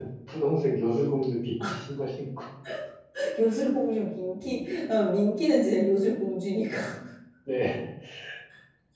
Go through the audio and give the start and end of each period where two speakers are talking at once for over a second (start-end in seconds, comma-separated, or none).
none